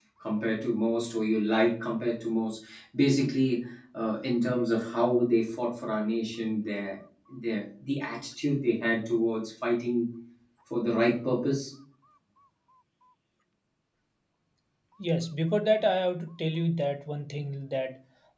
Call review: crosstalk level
none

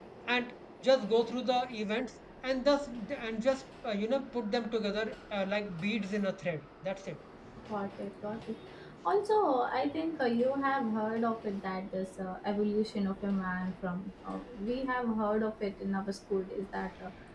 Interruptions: none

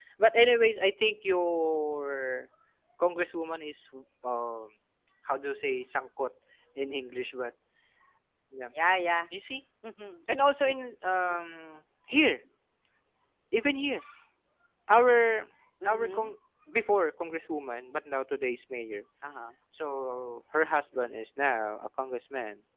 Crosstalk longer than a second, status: none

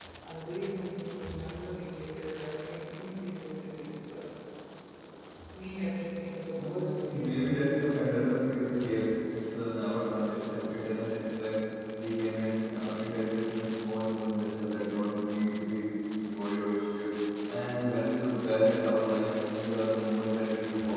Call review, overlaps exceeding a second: present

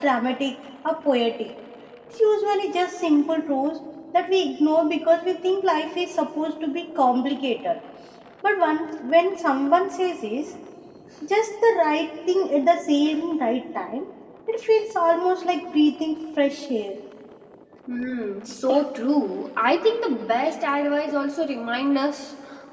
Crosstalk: none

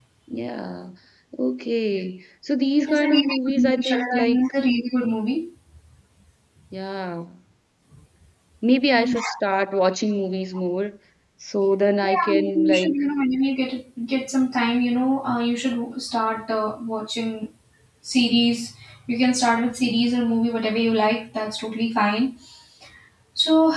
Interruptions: present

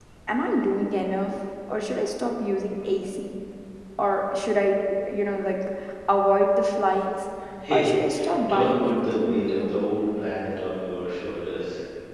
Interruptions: present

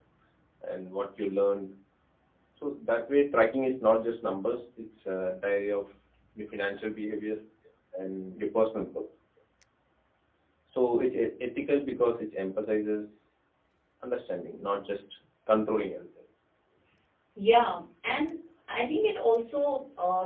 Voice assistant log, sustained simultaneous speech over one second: none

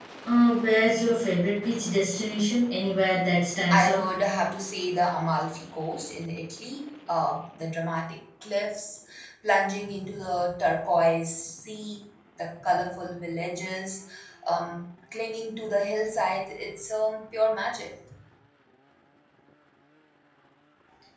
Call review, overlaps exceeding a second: none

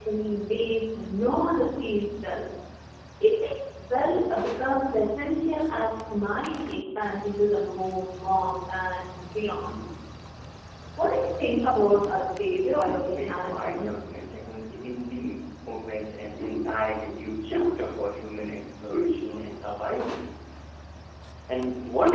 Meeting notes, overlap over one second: present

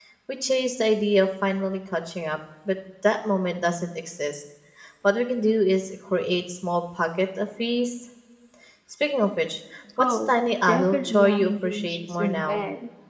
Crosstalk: present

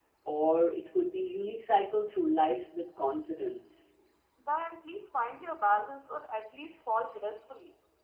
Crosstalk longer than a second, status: none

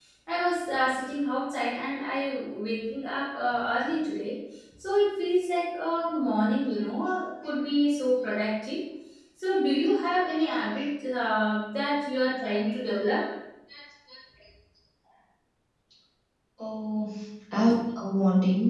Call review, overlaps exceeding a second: none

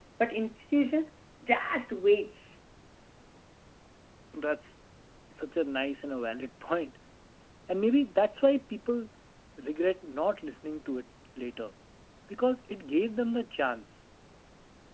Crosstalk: none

